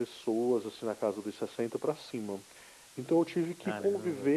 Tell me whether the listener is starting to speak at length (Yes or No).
No